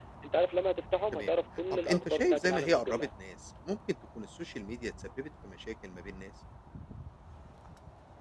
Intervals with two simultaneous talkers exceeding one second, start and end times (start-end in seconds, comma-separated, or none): 1.7-3.1